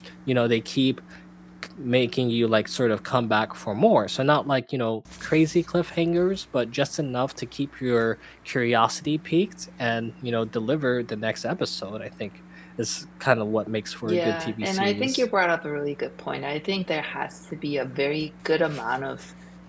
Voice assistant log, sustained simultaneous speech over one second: present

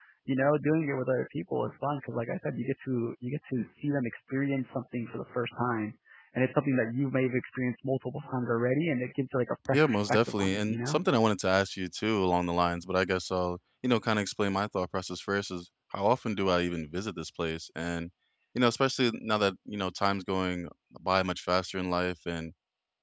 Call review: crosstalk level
present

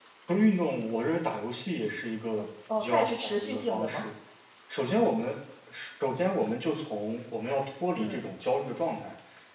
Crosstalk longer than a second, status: present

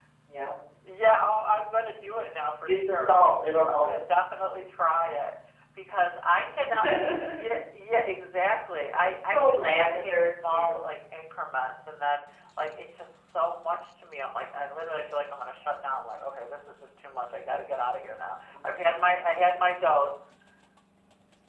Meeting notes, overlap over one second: present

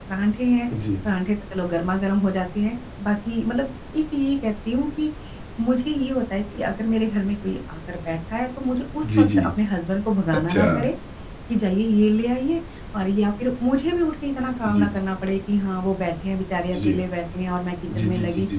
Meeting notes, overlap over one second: none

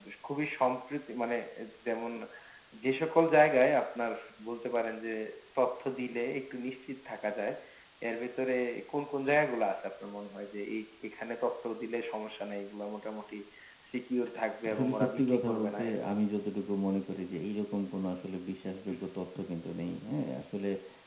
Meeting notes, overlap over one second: present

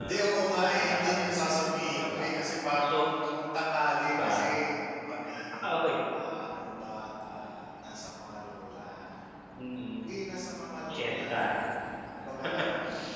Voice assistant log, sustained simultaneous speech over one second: present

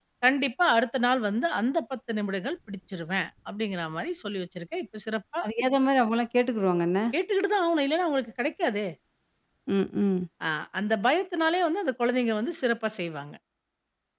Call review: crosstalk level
none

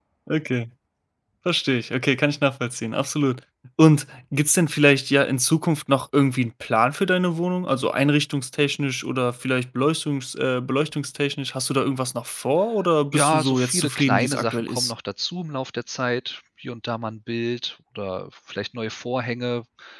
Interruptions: present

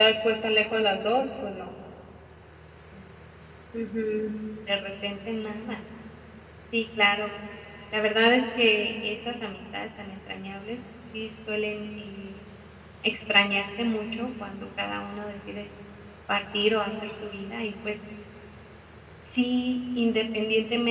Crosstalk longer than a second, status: none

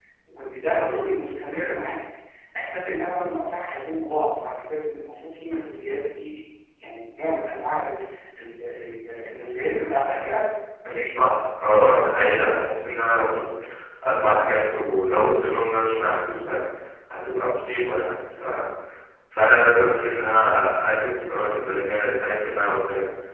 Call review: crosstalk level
none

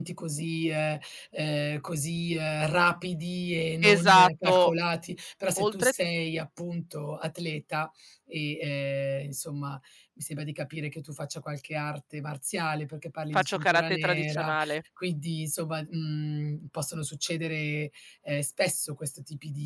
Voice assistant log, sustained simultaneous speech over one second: present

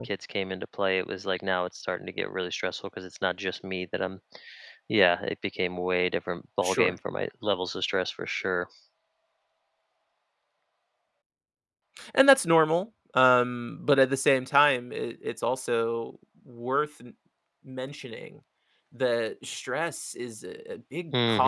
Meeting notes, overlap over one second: none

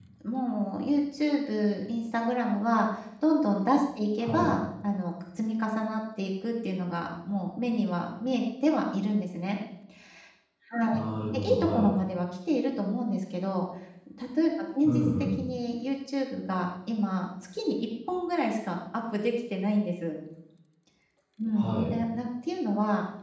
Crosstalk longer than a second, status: none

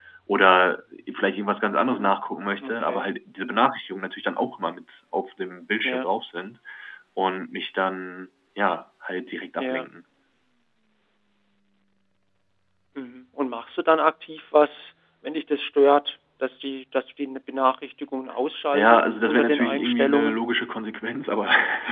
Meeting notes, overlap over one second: present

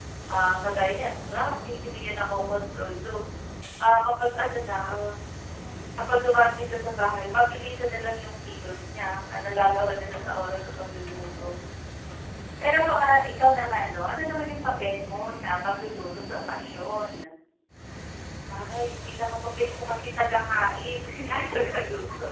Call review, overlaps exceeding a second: none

